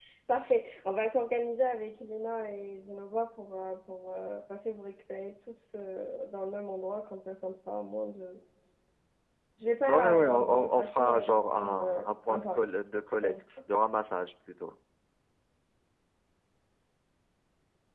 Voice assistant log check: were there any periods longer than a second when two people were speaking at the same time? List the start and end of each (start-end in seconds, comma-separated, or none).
9.9-12.7